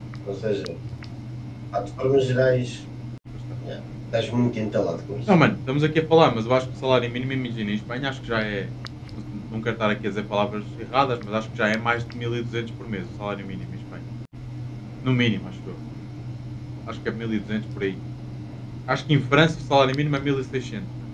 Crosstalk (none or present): none